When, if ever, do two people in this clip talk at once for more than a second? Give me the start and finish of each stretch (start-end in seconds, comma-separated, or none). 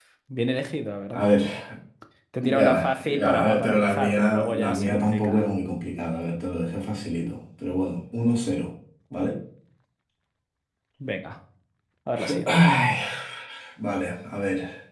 2.4-5.4